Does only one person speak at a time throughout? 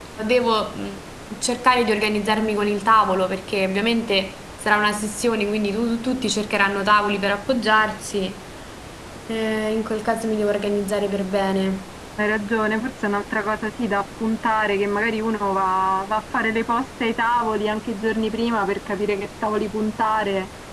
Yes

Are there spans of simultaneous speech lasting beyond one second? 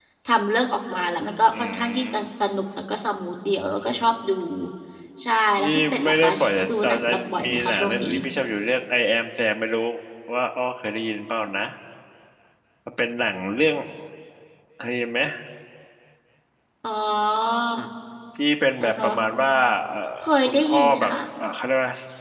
Yes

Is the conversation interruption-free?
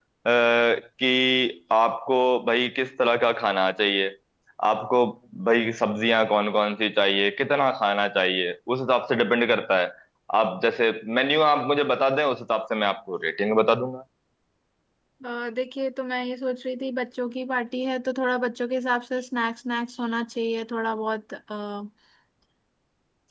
Yes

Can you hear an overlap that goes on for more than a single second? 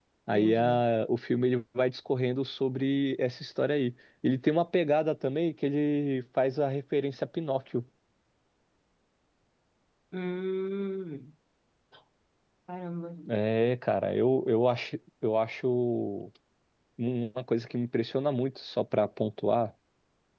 No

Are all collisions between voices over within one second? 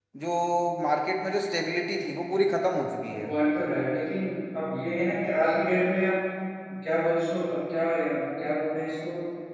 Yes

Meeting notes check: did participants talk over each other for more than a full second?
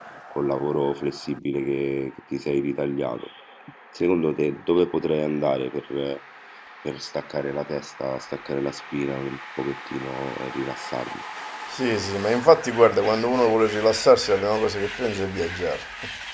No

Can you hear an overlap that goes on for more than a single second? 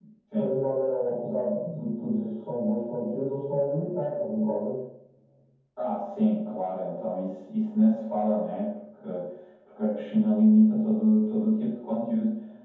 No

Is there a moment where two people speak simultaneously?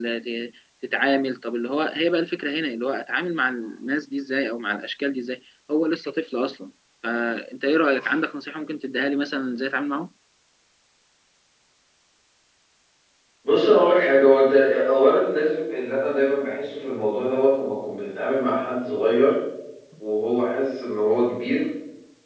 No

